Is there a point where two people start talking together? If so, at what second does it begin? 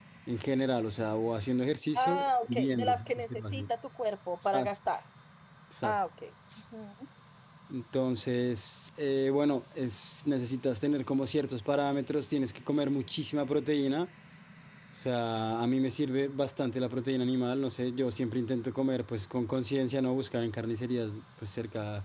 2.0 s

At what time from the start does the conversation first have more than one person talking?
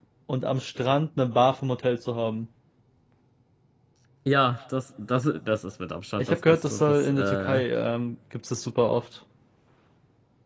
6.2 s

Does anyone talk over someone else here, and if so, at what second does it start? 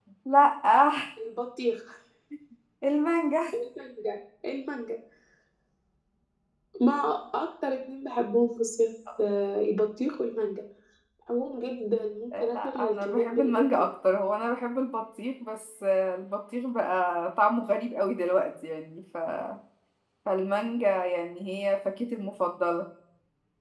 12.3 s

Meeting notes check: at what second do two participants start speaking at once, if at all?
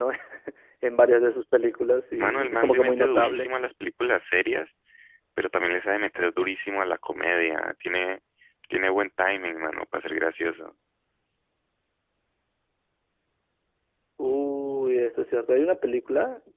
2.2 s

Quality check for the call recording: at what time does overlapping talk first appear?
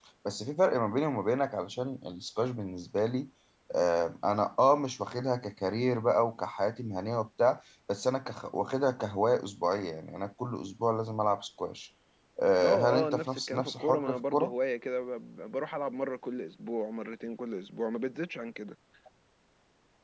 12.6 s

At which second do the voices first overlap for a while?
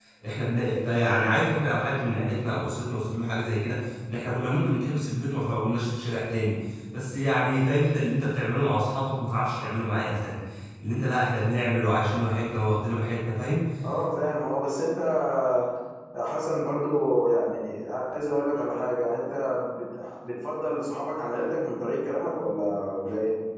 none

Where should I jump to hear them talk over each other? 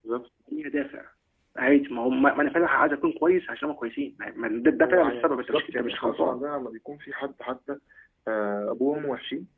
4.8 s

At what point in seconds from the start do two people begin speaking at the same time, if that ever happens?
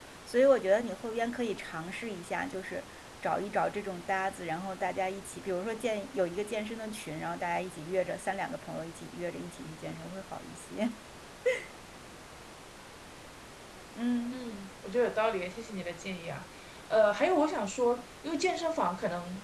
none

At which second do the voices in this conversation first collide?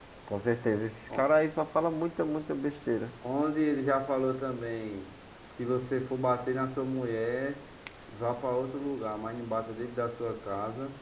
none

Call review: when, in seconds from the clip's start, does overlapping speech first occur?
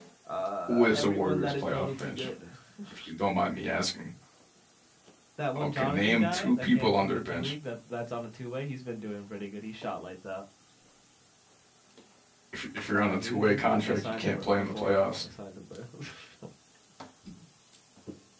0.7 s

